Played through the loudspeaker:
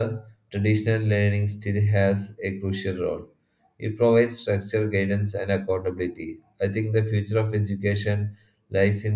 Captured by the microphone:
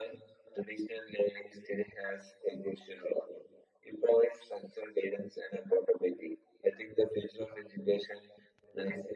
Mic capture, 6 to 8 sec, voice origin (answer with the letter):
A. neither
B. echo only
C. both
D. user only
B